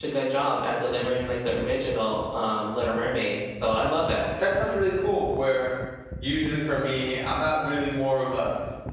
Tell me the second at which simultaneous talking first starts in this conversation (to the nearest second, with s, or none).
none